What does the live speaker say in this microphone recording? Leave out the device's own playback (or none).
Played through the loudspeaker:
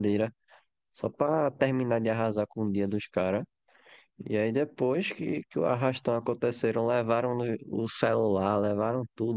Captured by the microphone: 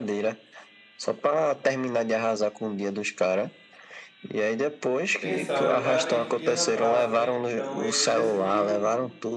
pensaram, cara, a gente ia na praça, né? Então eles decidiram